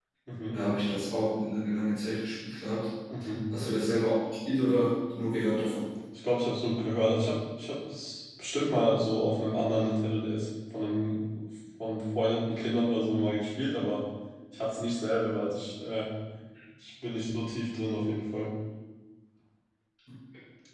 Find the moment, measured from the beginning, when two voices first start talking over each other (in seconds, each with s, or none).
none